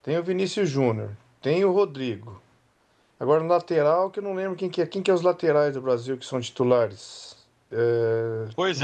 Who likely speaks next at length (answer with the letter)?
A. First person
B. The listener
B